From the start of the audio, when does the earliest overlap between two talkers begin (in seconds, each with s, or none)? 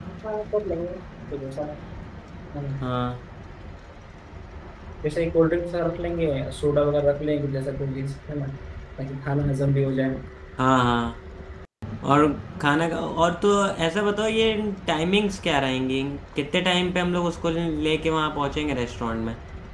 none